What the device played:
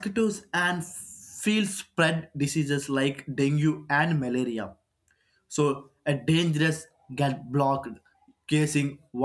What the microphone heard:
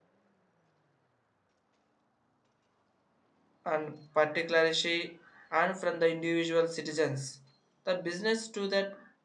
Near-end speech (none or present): present